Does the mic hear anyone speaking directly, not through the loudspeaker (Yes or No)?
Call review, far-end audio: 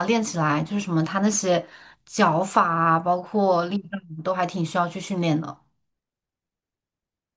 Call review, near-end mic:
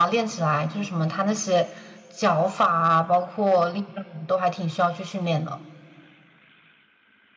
No